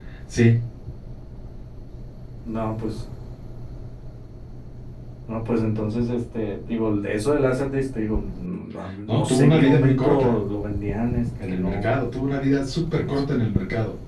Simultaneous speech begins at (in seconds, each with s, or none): 9.1 s